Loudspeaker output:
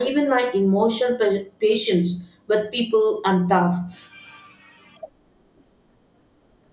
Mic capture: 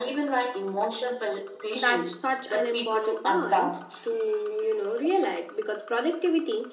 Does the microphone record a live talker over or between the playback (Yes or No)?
Yes